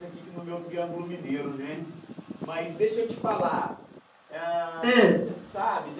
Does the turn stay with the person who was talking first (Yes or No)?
Yes